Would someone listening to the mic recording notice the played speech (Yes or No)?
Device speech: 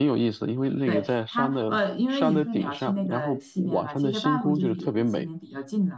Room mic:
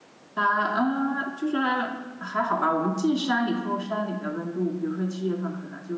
No